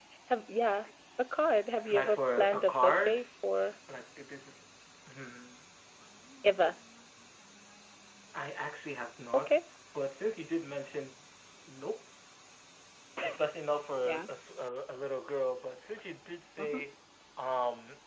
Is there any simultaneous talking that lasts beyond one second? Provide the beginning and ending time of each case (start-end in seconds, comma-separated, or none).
1.9-3.2